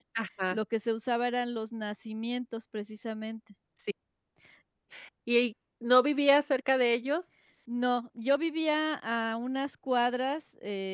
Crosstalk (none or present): none